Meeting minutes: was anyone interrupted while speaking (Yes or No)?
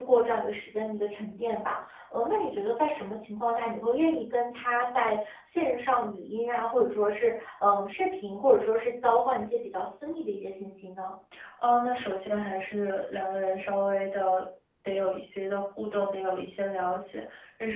No